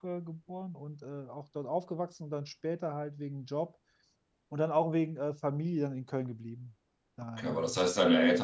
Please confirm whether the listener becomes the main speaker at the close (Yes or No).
Yes